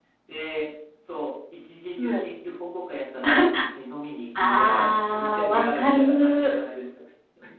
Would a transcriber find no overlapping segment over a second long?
No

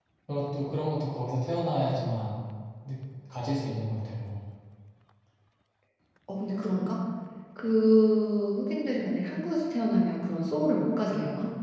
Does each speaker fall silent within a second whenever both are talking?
Yes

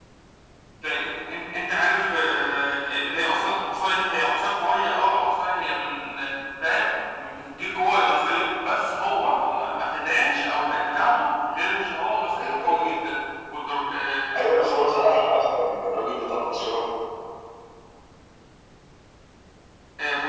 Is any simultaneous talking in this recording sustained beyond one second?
No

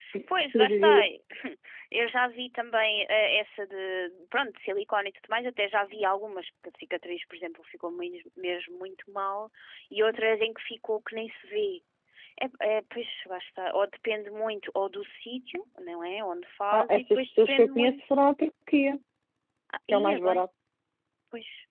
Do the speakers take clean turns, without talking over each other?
No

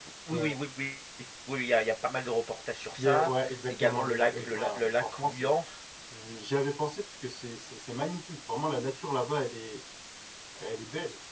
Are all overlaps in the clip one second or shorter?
No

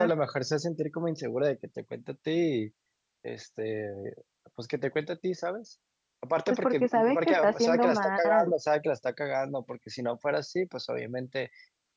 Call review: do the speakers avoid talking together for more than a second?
No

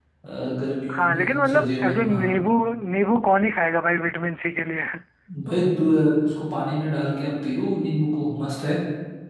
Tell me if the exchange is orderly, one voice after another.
No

